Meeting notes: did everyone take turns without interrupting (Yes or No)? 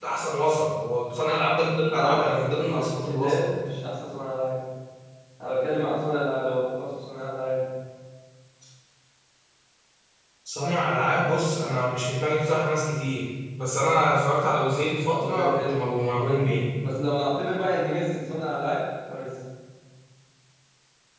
No